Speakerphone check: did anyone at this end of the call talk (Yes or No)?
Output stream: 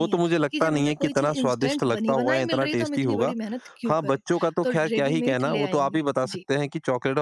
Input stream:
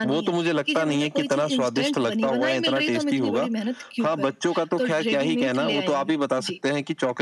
No